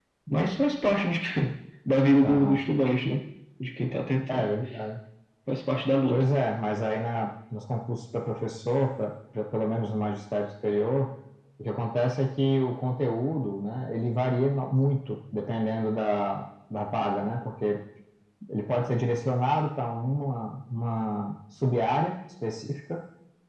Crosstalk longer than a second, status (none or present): none